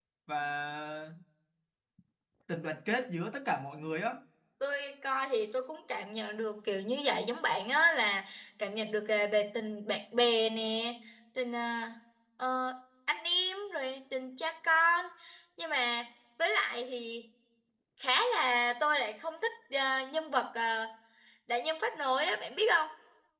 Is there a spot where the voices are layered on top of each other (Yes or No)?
No